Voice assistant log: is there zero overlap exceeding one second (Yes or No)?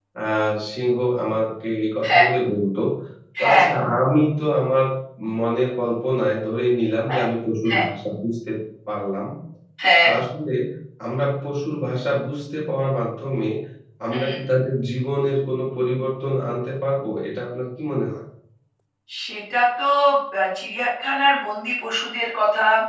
Yes